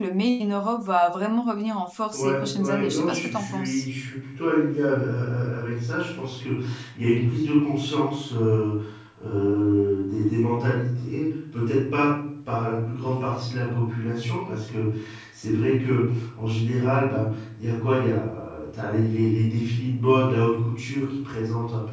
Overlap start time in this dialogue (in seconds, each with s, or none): 2.1 s